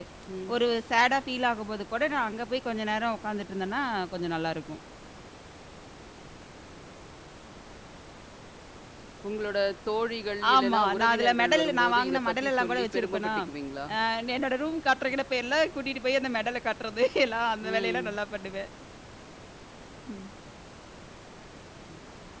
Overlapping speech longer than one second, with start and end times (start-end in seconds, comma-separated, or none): 10.5-13.3